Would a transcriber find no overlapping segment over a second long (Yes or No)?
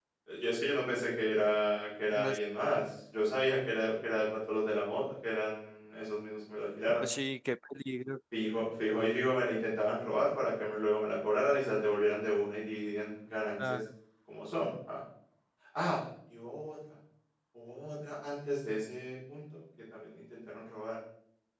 Yes